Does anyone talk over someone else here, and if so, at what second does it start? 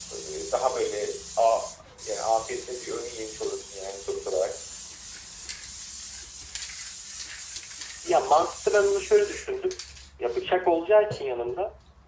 none

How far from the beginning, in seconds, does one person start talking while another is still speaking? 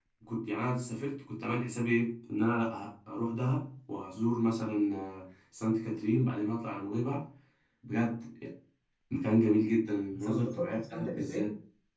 10.1 s

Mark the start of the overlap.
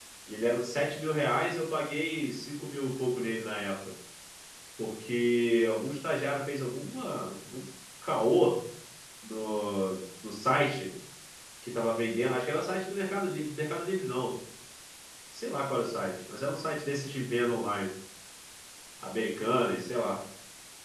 none

